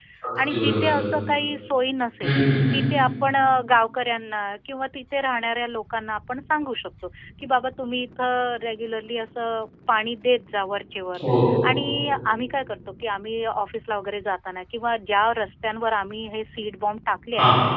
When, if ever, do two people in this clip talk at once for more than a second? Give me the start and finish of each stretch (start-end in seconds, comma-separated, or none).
none